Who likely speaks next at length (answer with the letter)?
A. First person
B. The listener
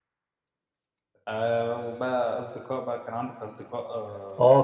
B